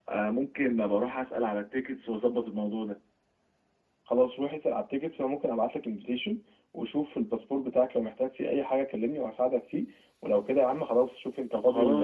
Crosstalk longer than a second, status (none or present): none